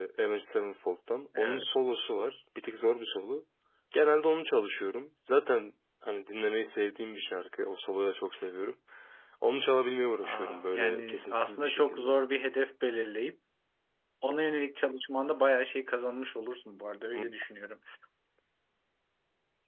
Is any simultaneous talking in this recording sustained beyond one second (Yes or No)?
Yes